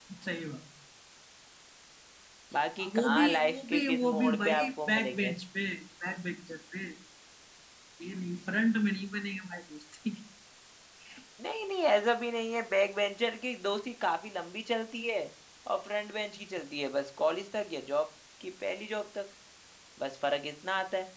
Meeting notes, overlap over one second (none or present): present